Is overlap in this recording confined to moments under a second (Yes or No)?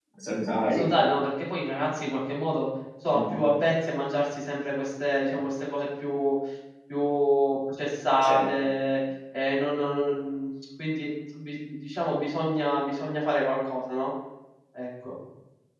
Yes